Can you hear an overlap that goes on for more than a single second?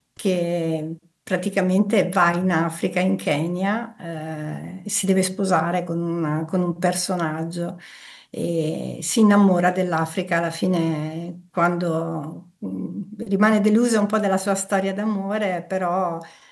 No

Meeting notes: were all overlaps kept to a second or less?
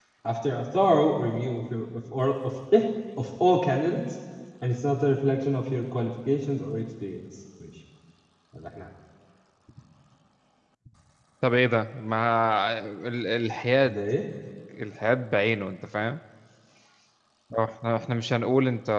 Yes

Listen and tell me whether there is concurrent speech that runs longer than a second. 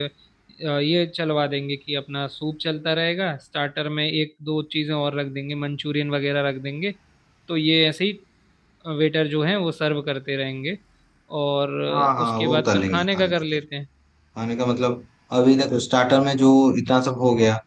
Yes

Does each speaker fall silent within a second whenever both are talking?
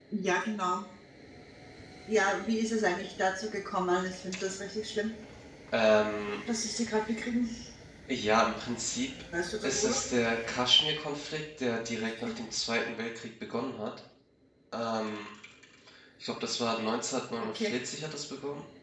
Yes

